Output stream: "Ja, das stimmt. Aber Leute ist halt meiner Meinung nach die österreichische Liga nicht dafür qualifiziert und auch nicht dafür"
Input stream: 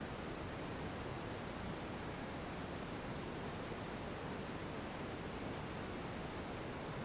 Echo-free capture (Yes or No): Yes